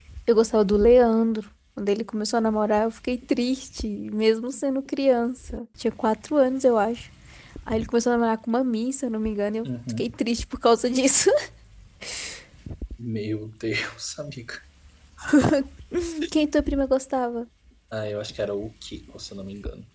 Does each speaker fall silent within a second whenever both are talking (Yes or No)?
Yes